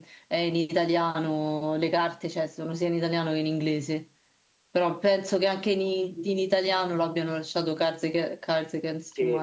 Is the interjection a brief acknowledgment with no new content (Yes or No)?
No